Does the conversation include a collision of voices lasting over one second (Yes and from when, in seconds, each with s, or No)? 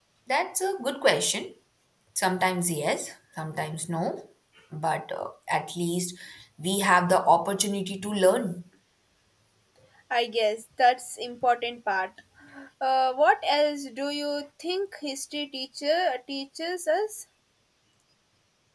No